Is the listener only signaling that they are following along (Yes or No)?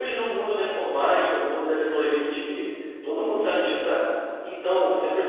Yes